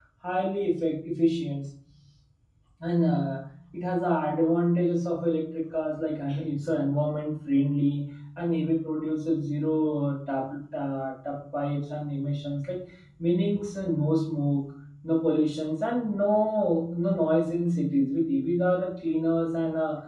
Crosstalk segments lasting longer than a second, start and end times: none

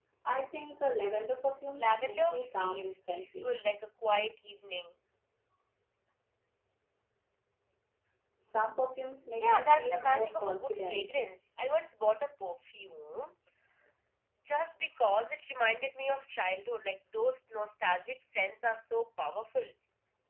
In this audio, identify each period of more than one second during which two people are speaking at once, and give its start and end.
1.8-3.5, 9.4-11.1

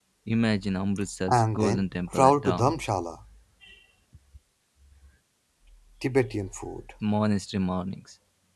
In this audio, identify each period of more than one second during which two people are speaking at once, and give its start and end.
1.3-2.7

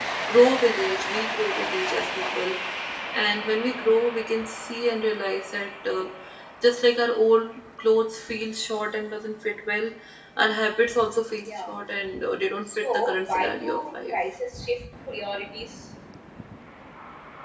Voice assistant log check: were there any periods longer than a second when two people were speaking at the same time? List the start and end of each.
12.7-14.1

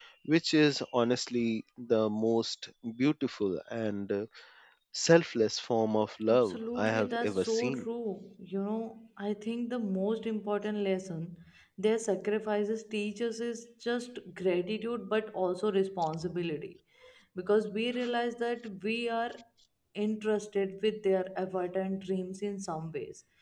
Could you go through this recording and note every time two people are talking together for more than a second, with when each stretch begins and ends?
6.3-7.8

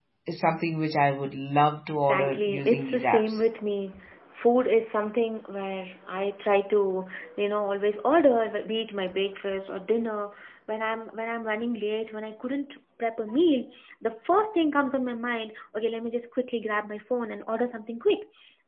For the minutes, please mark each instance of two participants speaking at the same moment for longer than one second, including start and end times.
2.0-3.4

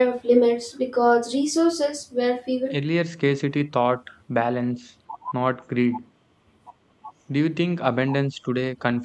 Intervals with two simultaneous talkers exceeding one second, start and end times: none

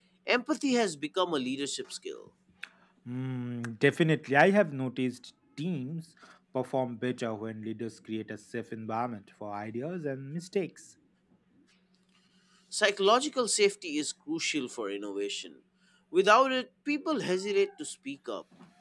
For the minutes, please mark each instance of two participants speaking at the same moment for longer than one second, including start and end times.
none

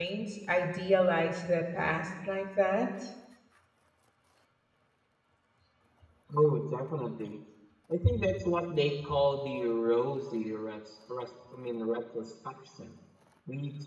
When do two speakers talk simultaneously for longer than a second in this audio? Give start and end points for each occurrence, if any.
none

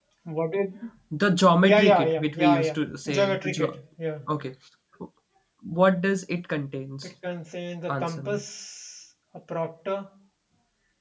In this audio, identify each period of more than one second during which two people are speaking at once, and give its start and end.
1.6-3.8

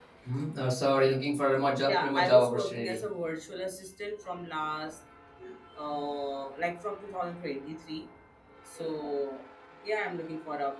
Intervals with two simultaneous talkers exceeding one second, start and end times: 1.8-3.0

